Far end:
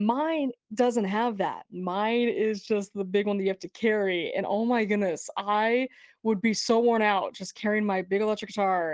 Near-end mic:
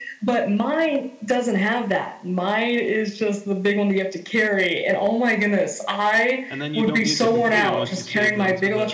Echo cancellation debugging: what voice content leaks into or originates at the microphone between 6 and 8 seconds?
both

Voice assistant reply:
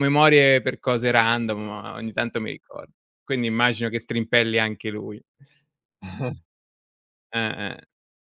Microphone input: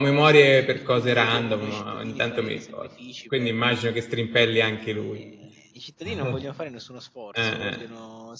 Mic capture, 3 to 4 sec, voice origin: both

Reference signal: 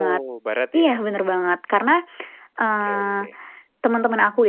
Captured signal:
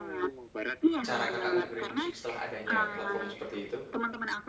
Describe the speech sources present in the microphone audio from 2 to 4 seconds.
both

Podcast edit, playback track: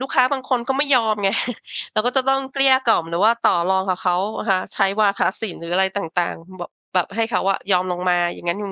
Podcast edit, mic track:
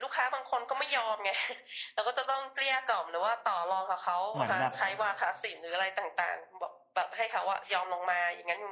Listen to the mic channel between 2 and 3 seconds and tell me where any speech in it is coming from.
echo only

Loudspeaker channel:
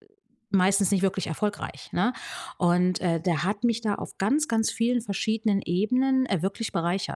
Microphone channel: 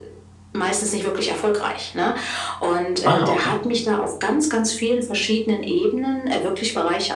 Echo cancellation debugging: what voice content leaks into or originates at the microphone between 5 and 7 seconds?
echo only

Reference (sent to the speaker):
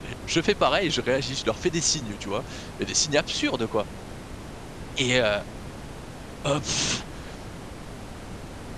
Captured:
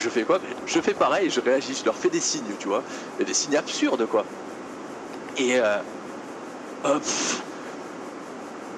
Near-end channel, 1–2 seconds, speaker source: echo only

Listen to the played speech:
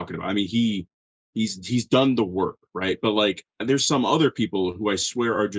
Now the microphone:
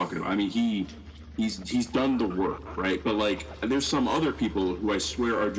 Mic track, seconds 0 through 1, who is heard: echo only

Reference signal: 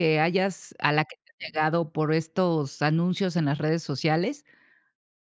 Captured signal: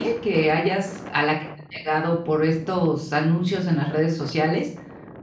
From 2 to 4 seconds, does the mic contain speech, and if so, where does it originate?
echo only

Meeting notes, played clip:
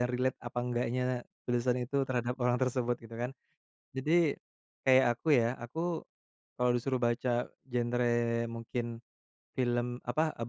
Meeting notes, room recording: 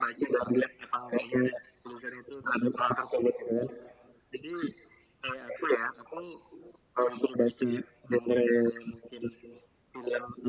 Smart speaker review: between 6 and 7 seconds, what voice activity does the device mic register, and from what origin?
echo only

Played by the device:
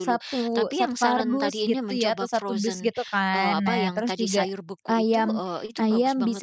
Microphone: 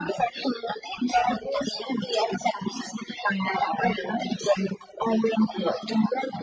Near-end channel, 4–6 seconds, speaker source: echo only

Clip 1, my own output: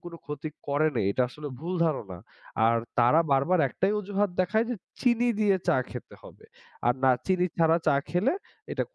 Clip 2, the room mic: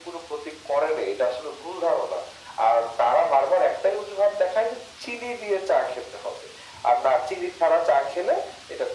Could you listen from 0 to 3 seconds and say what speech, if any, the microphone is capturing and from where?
echo only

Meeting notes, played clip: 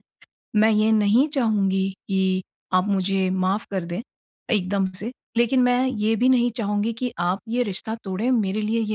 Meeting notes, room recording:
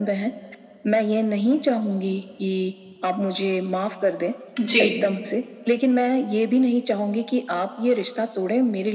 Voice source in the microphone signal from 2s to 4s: echo only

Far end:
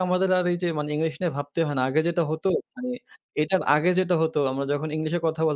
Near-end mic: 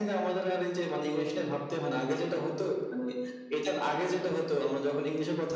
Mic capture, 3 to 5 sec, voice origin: echo only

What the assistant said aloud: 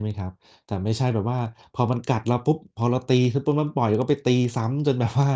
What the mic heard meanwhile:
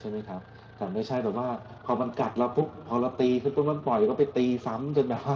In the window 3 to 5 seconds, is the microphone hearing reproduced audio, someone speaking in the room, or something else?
echo only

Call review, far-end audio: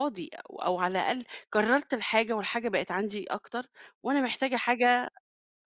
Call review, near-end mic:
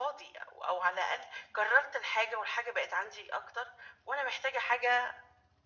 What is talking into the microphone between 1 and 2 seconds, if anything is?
echo only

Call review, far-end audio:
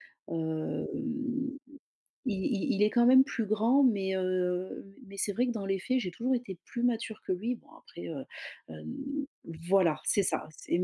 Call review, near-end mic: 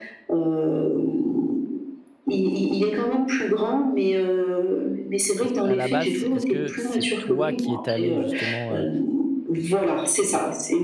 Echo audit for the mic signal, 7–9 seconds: both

